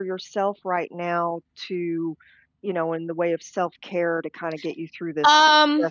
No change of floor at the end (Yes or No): No